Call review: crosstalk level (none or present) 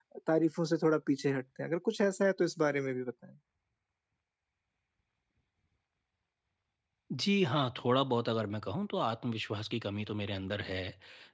none